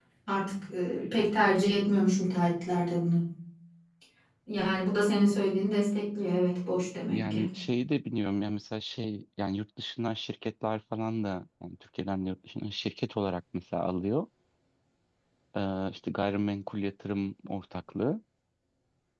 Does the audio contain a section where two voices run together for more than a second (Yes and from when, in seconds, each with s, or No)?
No